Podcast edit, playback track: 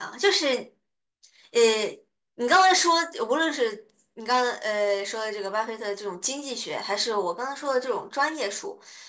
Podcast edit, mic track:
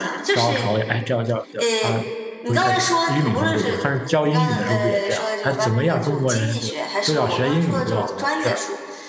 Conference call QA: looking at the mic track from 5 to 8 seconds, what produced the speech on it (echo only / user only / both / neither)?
both